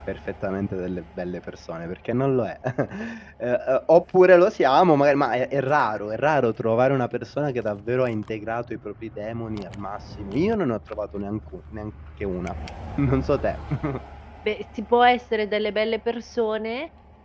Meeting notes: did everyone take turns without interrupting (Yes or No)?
Yes